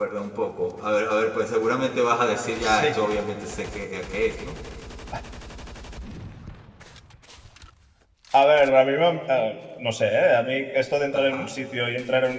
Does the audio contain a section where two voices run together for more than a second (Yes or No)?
No